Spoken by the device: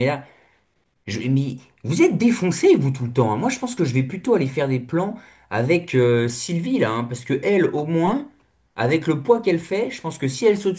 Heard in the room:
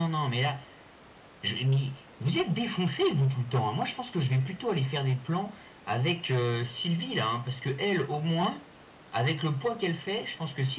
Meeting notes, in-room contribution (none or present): none